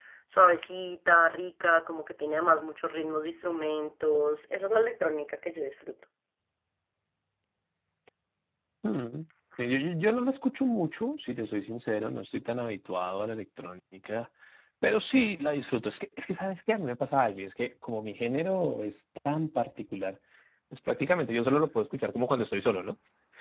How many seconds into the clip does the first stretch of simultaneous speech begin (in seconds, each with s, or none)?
none